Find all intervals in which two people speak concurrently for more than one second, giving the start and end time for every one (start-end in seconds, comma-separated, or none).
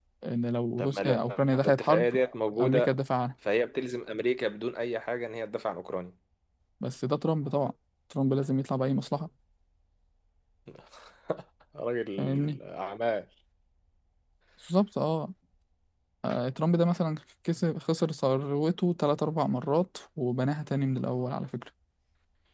0.8-2.1